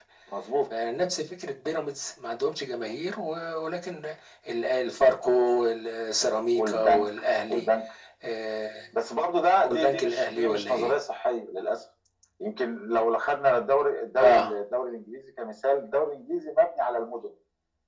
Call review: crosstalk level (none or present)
present